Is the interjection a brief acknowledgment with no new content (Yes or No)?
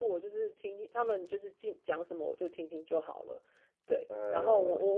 Yes